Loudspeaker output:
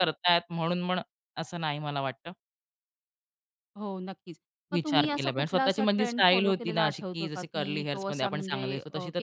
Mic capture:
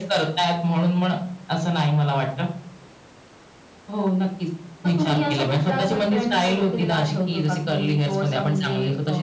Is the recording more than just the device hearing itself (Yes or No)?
No